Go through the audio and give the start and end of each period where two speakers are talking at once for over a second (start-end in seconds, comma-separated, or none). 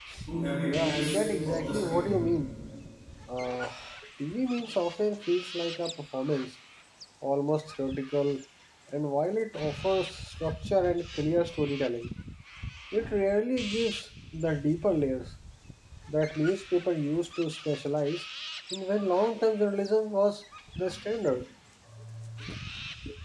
0.6-2.3